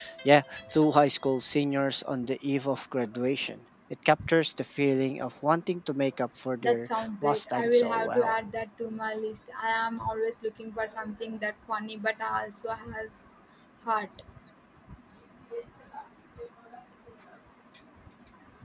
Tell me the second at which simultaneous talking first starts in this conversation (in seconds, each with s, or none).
6.6 s